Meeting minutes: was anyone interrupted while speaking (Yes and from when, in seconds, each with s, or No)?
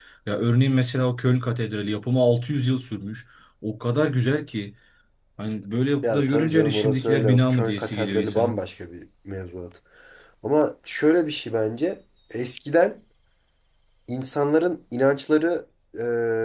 Yes, from 6.0 s